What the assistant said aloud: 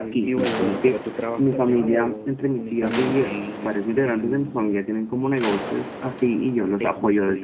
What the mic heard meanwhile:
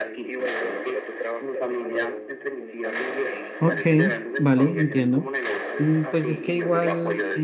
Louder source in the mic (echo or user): user